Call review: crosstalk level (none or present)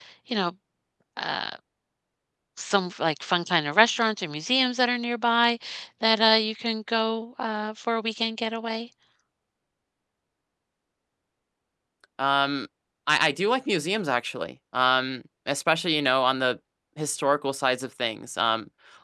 none